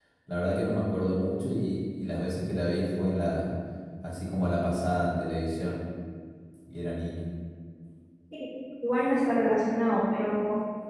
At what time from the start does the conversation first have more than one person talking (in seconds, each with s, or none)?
none